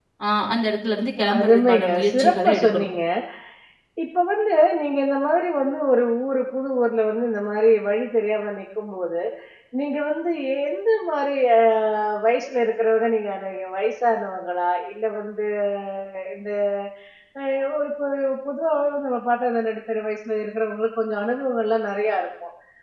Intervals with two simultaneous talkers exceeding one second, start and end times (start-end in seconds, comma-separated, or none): 1.4-2.9